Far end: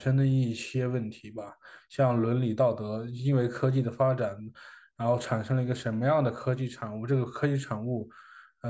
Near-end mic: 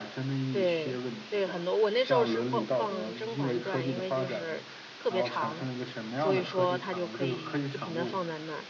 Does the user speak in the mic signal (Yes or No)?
Yes